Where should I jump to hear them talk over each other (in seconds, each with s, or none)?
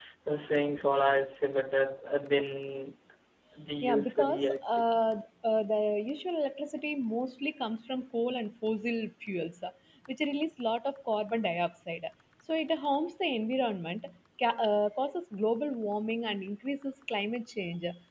3.8 s